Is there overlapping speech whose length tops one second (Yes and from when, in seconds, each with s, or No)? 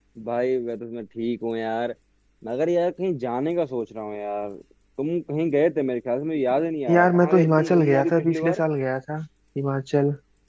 Yes, from 6.9 s